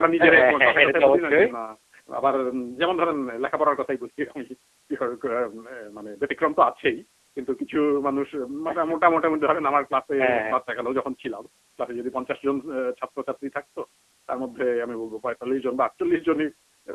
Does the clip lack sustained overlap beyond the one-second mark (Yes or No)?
No